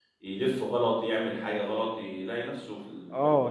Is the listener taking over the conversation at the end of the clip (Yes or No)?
Yes